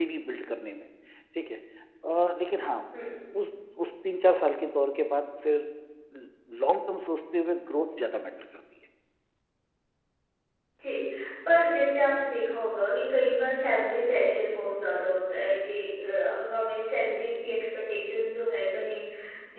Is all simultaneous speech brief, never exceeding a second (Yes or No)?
Yes